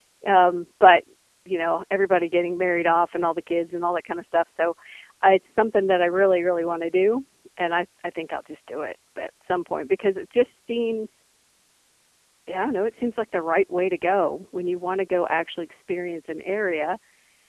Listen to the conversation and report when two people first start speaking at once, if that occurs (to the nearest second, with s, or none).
none